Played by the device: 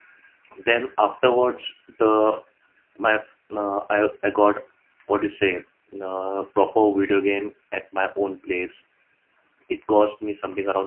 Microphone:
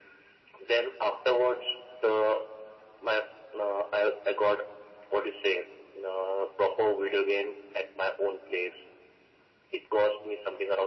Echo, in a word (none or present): present